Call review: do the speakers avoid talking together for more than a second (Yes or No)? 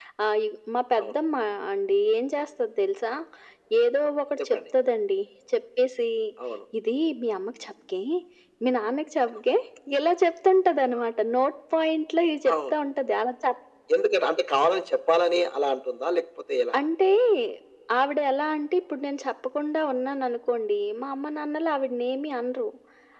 Yes